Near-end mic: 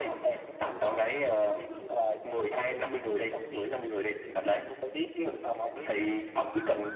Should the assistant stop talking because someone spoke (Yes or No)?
No